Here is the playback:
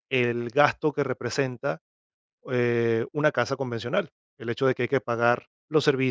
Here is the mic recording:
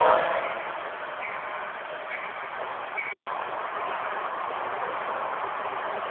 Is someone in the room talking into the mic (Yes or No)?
No